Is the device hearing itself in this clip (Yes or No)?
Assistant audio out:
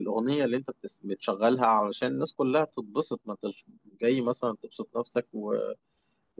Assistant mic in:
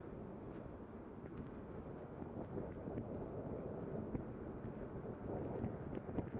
No